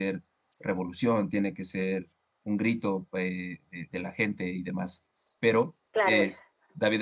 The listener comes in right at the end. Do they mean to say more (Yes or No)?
No